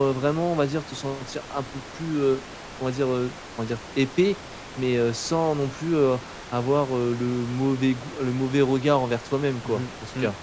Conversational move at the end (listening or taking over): taking over